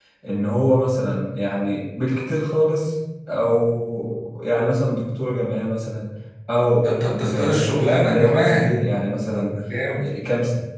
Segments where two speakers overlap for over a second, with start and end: 6.8-8.7

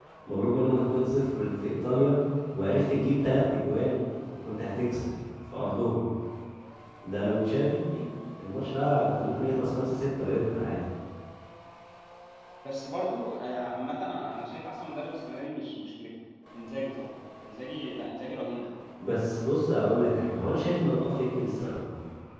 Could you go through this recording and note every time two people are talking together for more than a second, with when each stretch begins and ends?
none

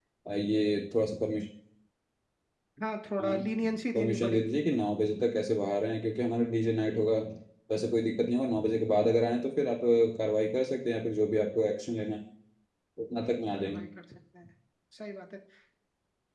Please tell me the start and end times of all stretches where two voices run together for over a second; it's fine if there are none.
3.2-4.6

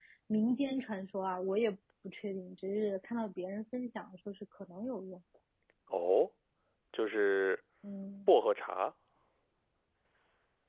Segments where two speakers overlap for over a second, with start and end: none

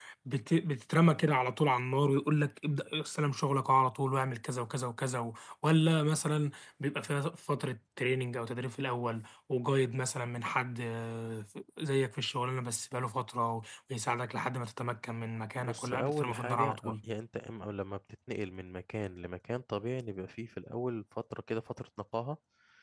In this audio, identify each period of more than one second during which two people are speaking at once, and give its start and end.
15.6-16.9

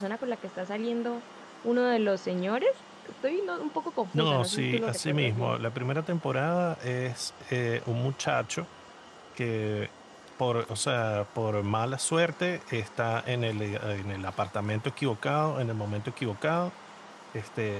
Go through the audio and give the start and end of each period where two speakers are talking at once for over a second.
4.1-5.5

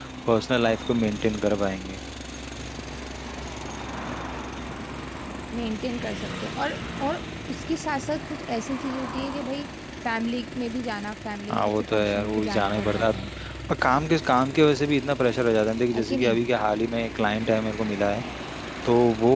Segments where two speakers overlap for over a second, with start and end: 11.5-13.1

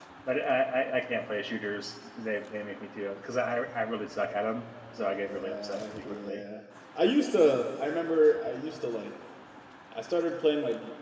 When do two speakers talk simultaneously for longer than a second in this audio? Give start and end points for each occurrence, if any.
5.0-6.4

